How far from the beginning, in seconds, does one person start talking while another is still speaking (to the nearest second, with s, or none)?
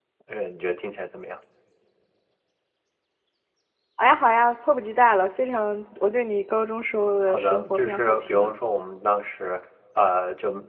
7 s